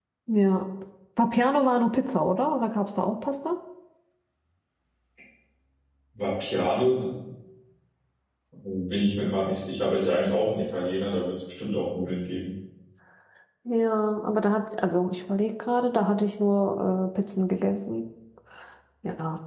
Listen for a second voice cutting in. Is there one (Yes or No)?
No